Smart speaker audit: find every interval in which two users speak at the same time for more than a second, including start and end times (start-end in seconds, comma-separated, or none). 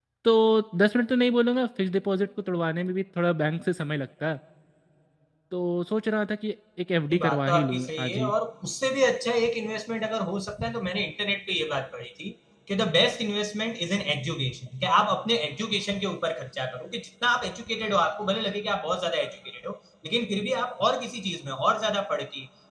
7.1-8.3